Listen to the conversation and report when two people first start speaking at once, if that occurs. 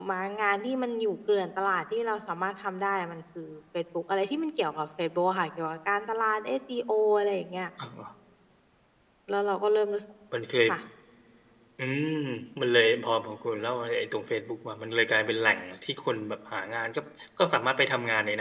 none

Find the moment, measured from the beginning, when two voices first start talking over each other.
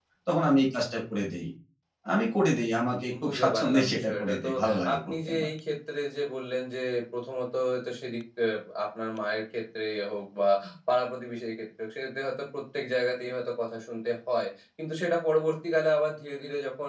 3.1 s

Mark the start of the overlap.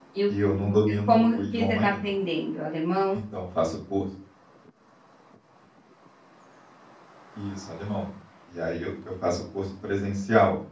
0.6 s

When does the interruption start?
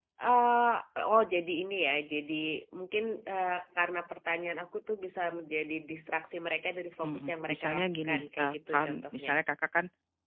7.0 s

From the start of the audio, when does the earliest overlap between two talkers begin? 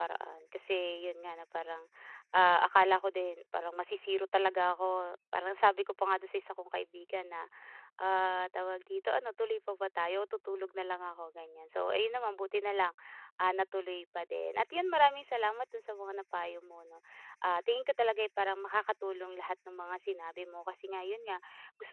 none

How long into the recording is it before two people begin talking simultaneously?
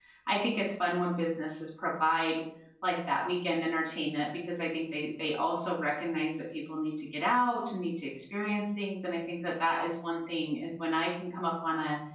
none

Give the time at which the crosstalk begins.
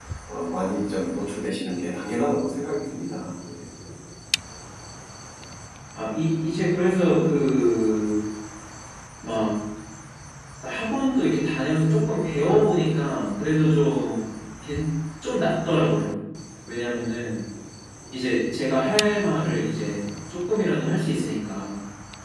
none

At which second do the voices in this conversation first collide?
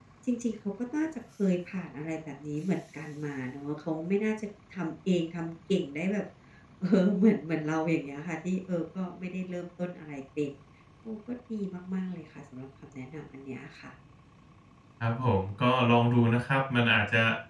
none

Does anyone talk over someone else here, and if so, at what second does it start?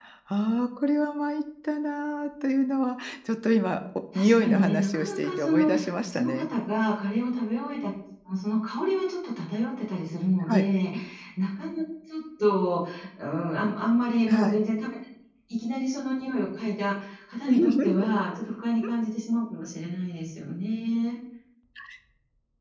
4.2 s

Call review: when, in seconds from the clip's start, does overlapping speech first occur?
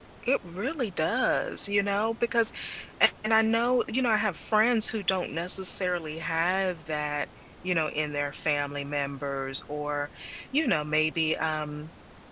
none

